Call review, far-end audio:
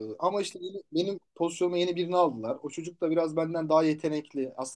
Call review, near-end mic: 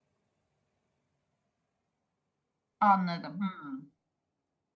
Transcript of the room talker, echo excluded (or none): Anladım. Hmm.